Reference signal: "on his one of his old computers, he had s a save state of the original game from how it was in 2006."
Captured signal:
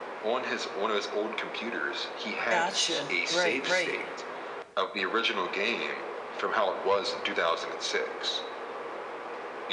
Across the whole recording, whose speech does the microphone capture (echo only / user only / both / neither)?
both